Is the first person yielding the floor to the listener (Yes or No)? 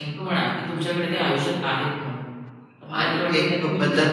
Yes